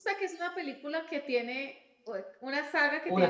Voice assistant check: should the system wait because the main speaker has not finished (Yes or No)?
Yes